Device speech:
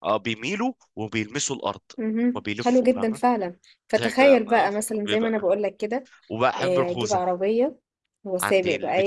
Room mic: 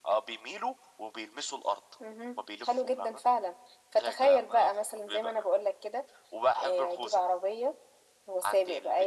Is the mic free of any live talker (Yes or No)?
Yes